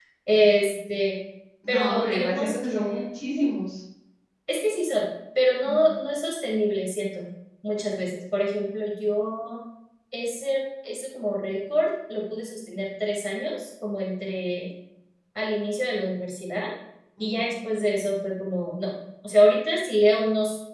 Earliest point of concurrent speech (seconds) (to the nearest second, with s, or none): 2 s